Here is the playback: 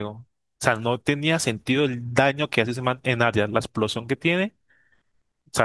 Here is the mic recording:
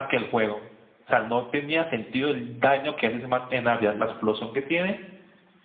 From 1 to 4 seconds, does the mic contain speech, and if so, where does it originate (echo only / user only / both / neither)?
echo only